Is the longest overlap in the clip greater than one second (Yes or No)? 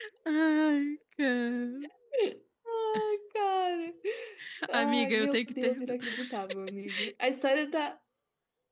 Yes